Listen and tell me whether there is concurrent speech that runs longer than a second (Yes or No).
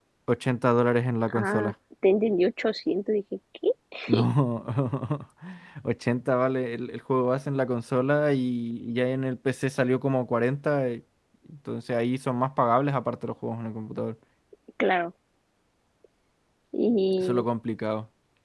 No